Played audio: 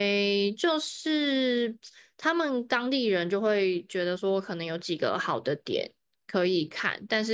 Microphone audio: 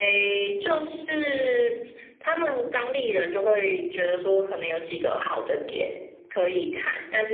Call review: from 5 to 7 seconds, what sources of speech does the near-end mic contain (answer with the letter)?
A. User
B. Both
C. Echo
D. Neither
C